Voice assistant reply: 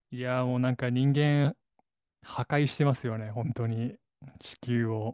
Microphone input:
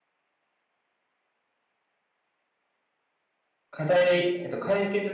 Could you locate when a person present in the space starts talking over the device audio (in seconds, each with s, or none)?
3.7 s